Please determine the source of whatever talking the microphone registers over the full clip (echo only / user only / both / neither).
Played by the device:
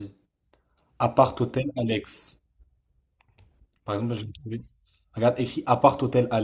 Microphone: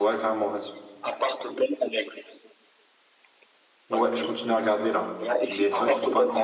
both